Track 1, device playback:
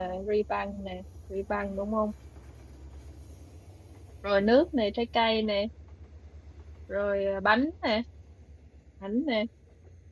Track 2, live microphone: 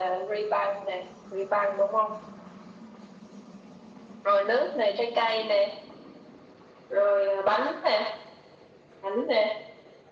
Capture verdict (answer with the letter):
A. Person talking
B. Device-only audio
B